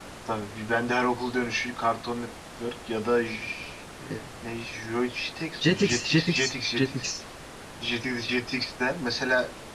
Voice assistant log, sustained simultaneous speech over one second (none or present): present